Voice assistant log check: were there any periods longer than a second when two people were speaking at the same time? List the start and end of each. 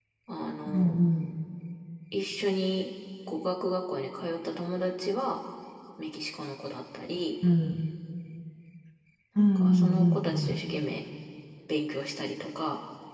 9.4-10.6

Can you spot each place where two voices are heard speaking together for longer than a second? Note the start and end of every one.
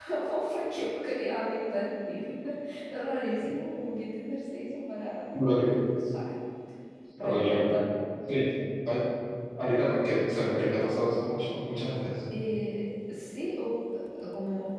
none

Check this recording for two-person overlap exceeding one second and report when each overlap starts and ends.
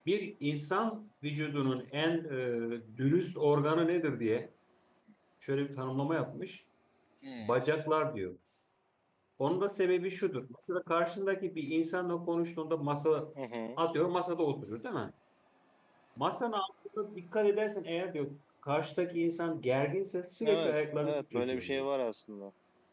20.4-21.8

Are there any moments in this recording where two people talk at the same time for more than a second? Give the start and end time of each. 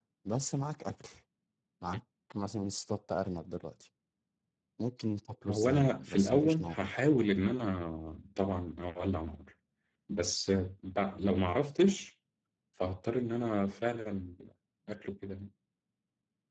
5.5-6.9

